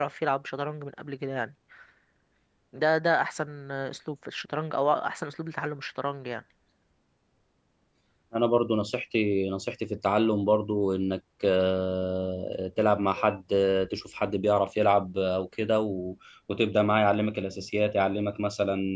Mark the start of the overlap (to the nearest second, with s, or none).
none